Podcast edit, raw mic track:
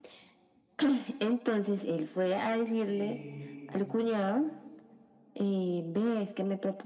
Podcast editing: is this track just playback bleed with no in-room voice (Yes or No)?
No